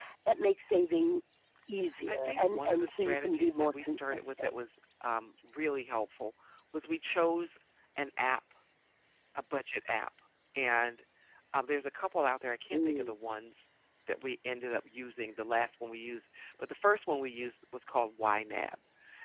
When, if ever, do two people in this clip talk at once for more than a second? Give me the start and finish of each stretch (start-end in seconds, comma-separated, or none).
2.1-4.5